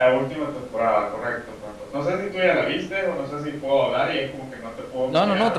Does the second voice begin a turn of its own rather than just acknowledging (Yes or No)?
Yes